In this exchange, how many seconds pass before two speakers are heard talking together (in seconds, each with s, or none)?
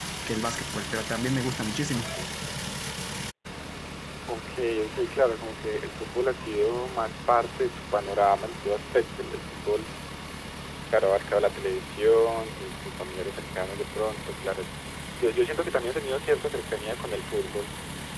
none